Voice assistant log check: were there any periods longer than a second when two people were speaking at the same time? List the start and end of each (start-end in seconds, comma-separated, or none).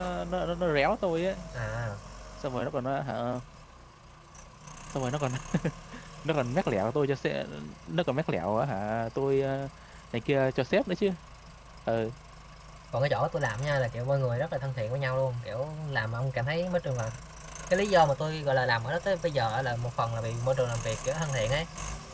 none